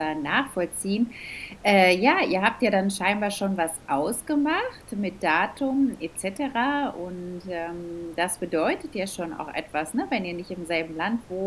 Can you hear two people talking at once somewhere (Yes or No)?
No